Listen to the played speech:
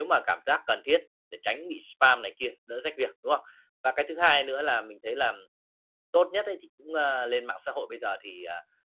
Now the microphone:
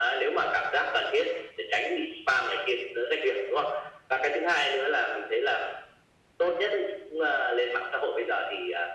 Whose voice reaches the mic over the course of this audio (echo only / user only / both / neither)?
echo only